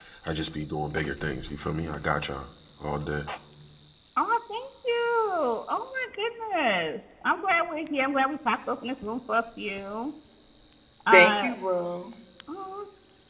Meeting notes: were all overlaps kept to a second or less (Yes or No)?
Yes